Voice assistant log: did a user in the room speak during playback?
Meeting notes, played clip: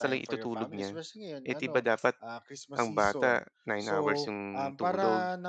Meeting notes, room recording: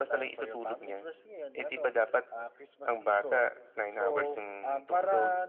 No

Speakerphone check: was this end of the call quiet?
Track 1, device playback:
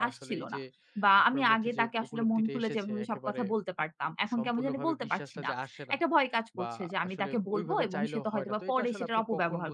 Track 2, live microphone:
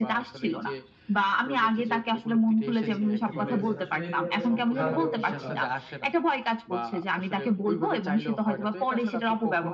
No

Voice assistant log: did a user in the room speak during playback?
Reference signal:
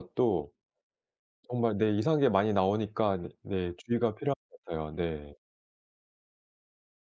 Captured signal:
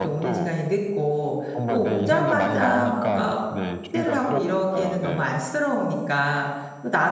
Yes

